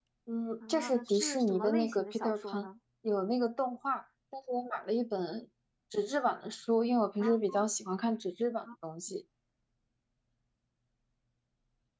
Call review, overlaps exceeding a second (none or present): present